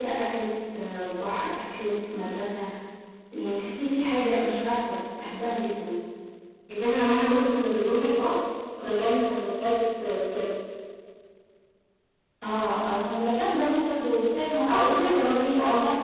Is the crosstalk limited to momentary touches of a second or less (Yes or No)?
No